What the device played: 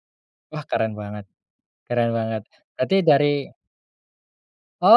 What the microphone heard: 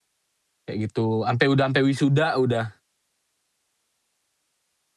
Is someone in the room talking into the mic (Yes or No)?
Yes